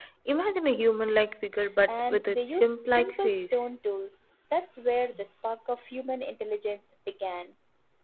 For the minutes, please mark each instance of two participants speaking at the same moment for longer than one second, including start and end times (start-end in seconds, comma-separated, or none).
1.9-3.6